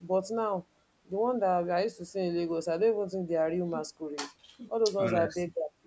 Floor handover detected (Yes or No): No